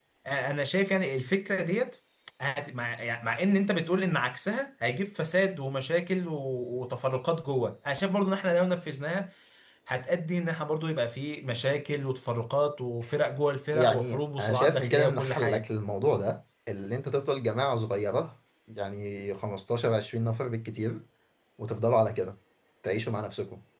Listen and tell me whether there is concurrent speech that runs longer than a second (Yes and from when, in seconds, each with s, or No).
Yes, from 13.7 s